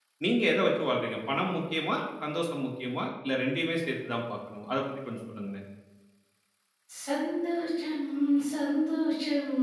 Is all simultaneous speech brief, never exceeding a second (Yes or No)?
Yes